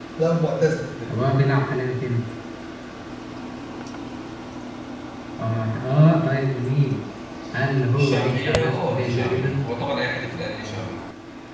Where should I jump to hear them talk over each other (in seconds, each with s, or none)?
7.9 s